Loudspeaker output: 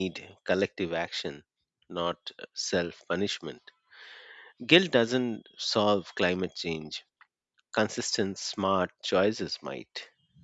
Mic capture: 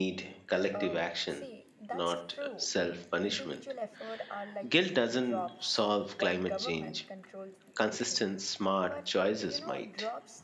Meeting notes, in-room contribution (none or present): present